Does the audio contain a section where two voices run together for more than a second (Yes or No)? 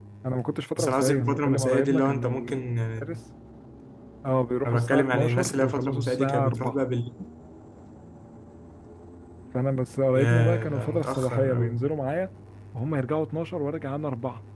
Yes